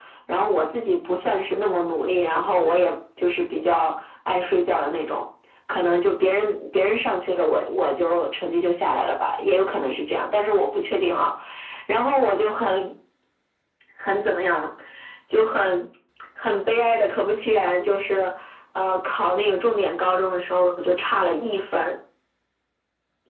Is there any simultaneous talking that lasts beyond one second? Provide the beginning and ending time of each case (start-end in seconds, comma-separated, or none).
none